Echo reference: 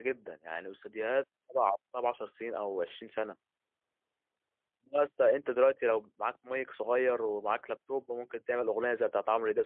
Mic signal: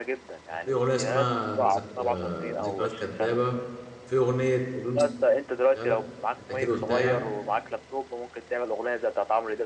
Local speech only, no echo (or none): كان في اغنيه اسمها ذك... آه، ذكريات كدابه وفي اغنيه قولوا لي سبتها لك انت كده قلتها يعني